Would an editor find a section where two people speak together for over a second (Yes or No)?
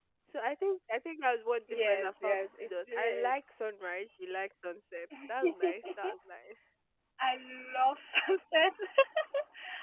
Yes